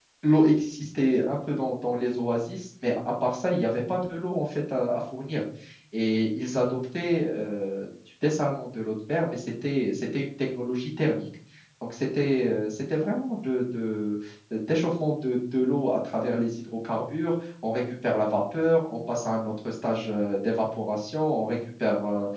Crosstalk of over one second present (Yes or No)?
No